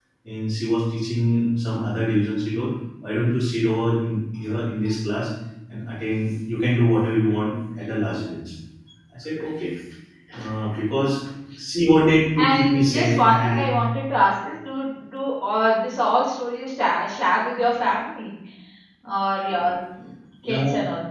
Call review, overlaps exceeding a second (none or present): present